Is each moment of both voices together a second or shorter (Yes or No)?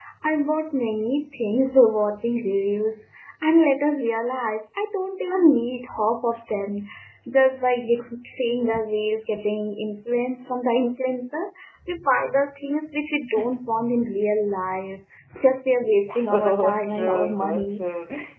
No